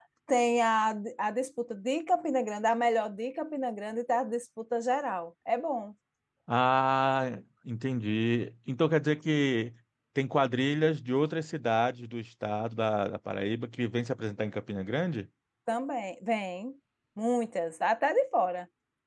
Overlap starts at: none

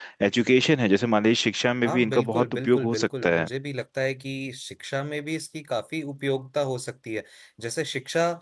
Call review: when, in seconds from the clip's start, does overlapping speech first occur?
1.8 s

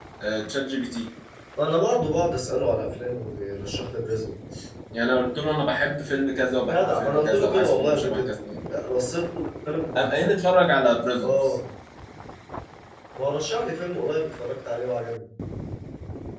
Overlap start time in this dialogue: 6.7 s

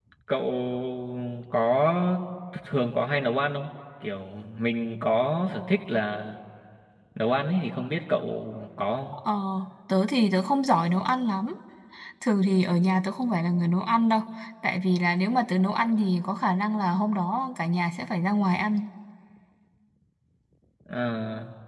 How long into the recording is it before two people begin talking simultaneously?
none

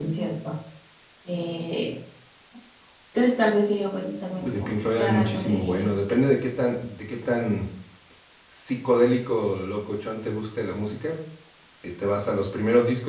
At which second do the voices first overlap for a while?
4.4 s

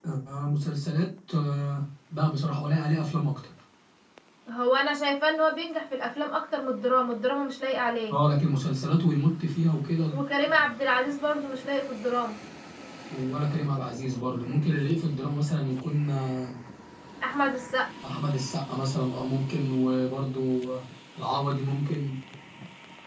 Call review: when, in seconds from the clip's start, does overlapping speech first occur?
none

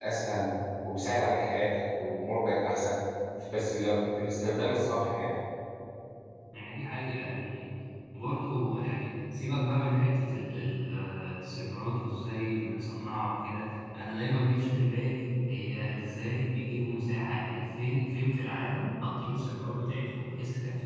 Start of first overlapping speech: none

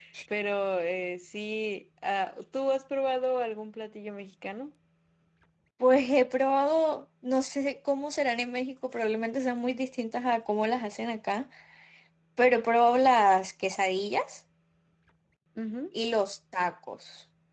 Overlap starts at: none

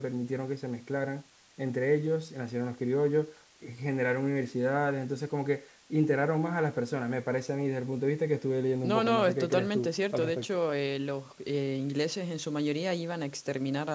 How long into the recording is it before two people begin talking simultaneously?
8.8 s

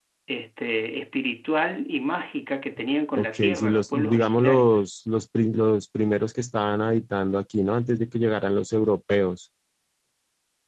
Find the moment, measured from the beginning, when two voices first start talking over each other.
3.2 s

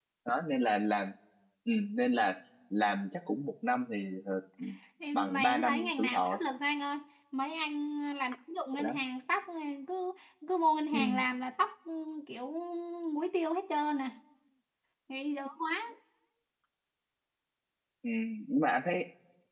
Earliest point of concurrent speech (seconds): 5.1 s

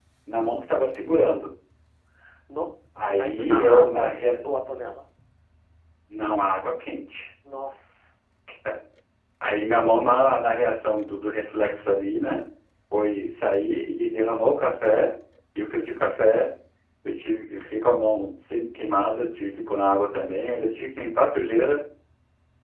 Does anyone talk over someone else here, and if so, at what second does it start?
3.0 s

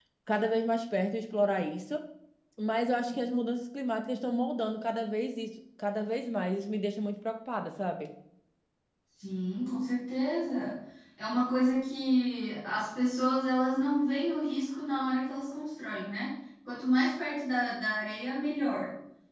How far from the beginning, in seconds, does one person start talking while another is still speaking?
none

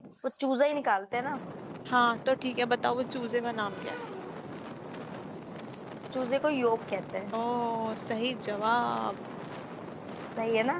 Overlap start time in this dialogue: none

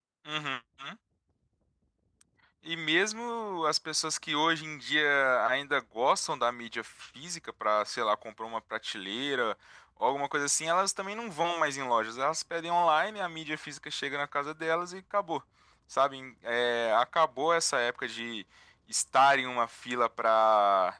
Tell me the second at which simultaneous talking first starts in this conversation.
none

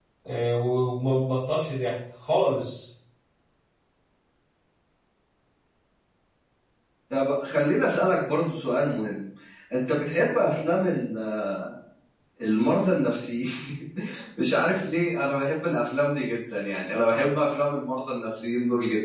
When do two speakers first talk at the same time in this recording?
none

